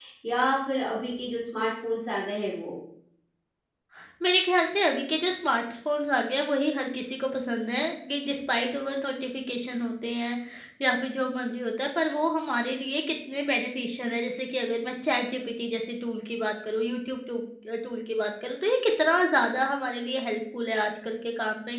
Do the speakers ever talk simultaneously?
No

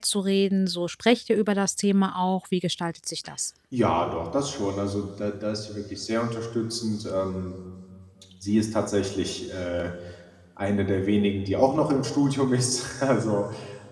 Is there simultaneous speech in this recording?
No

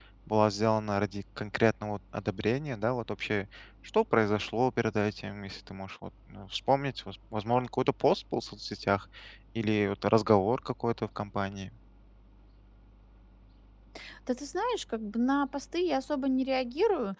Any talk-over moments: No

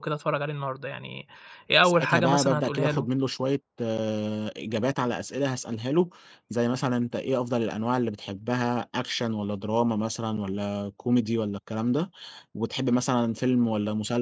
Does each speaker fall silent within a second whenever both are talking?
No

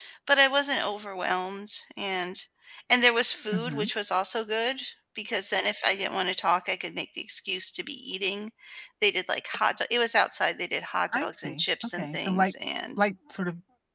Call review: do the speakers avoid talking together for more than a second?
No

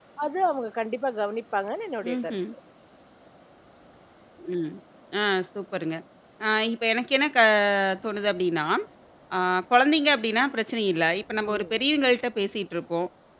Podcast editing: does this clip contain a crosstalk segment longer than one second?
No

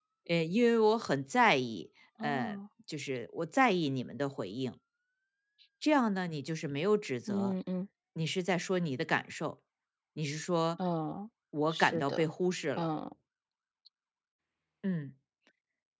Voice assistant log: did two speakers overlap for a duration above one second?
No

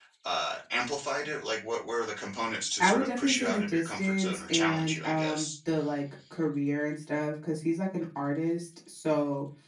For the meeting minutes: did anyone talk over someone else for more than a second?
Yes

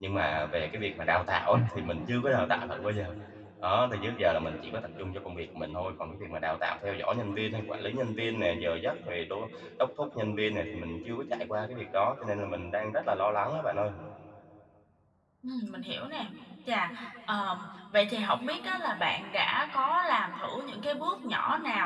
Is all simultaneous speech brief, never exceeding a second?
Yes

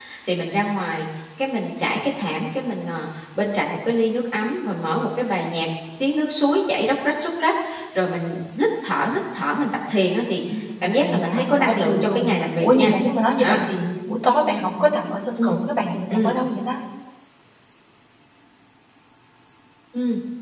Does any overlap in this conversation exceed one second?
Yes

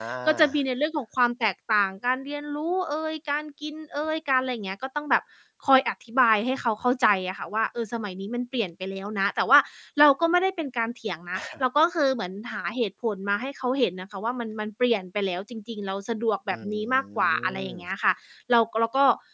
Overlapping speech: Yes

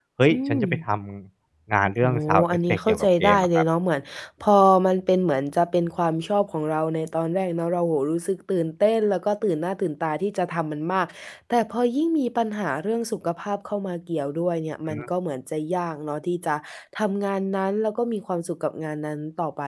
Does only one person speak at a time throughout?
No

